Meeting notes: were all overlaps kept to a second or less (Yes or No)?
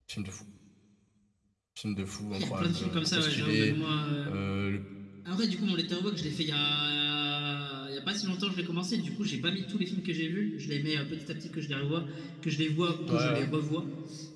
No